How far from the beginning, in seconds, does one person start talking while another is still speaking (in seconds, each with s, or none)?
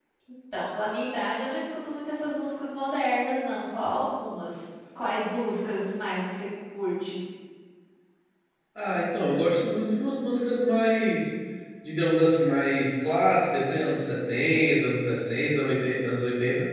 none